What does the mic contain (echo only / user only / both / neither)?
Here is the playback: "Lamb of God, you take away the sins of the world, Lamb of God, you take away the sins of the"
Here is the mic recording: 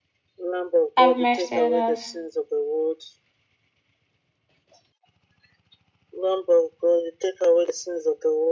both